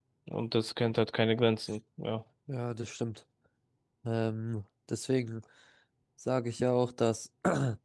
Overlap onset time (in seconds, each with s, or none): none